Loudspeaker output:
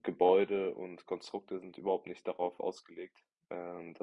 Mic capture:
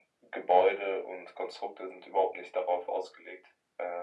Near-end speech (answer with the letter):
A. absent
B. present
A